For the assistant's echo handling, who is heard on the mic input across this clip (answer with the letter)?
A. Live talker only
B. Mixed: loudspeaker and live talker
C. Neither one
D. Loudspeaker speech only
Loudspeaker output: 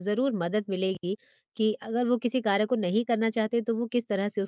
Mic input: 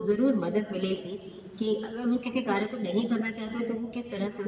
D